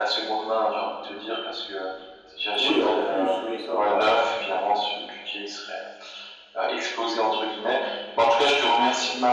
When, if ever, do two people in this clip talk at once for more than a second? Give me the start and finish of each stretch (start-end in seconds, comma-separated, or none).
2.6-4.1